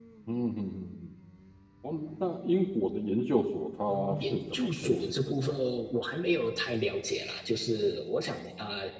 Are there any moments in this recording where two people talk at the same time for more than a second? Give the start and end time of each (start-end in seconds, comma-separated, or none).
3.9-5.5